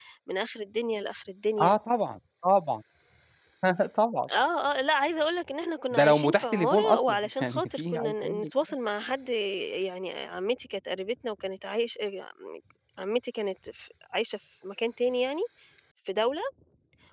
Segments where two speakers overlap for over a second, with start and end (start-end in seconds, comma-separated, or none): 5.9-8.5